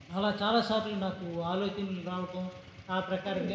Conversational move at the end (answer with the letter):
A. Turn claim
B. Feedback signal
B